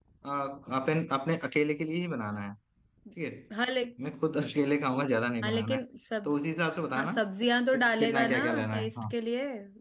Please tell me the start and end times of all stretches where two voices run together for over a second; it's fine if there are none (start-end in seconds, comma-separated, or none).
7.7-9.1